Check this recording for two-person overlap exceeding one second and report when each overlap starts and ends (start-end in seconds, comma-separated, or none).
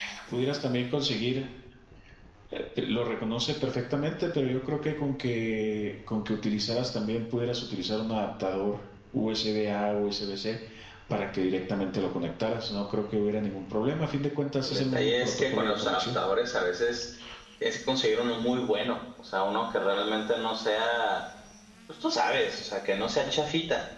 14.7-16.2